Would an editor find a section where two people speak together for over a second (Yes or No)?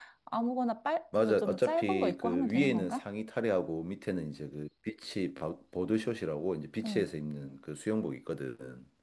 Yes